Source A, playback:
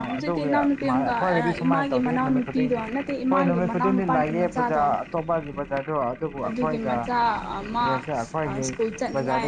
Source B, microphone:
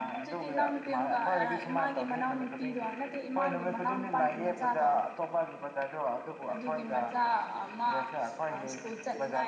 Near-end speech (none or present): none